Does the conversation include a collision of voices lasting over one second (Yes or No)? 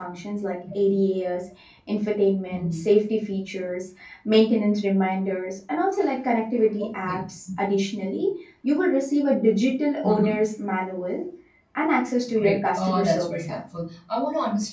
Yes